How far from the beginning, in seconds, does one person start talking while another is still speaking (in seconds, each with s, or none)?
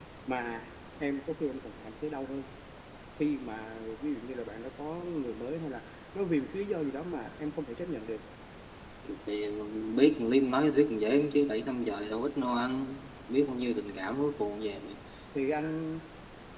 none